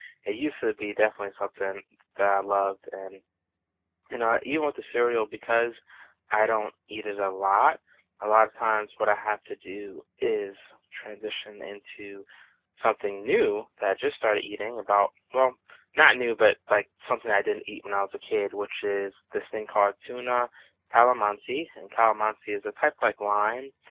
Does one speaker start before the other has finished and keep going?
No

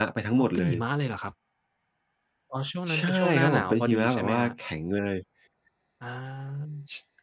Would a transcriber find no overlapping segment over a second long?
No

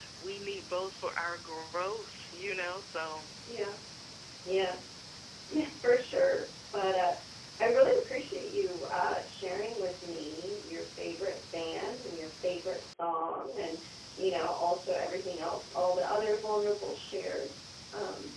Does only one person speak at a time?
Yes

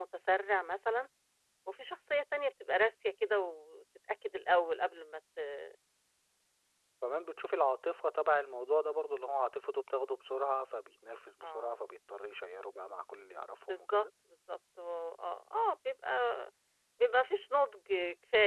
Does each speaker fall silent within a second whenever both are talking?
Yes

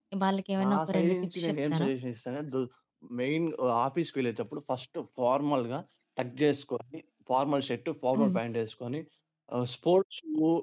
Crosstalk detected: Yes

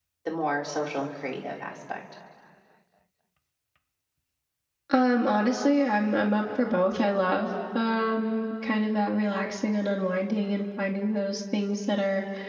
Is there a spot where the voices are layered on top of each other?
No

